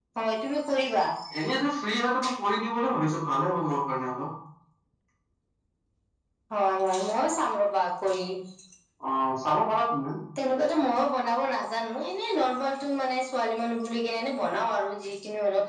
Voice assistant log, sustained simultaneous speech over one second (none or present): none